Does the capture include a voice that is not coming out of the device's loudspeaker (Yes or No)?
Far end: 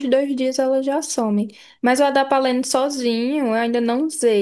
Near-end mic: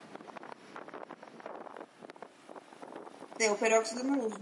Yes